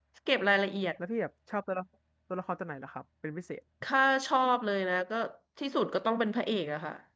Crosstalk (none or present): none